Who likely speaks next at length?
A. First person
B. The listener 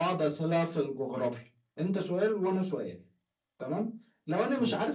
A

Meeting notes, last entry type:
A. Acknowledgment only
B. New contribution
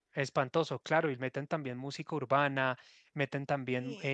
A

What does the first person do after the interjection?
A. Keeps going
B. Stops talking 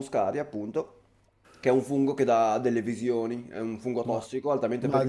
B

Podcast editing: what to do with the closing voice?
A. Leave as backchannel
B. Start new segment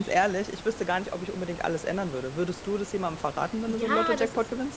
B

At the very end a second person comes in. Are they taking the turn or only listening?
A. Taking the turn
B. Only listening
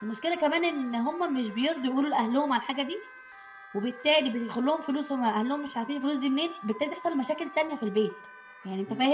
B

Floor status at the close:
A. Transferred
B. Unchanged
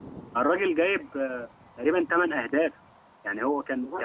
B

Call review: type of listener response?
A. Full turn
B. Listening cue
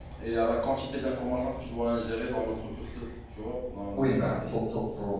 A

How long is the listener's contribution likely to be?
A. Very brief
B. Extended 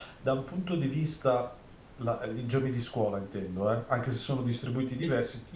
A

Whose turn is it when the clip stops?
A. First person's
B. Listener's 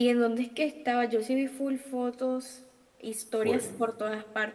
A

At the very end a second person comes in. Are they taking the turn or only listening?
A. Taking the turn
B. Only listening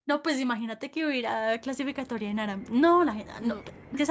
B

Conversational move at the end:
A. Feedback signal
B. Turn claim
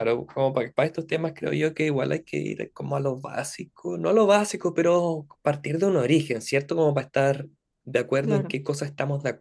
A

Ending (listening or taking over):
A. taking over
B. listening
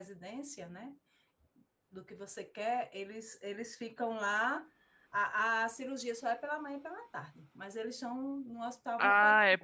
A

